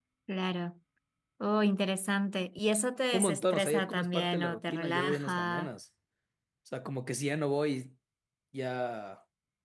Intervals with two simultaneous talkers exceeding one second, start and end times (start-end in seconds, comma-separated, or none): 3.1-5.7